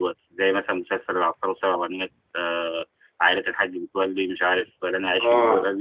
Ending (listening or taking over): taking over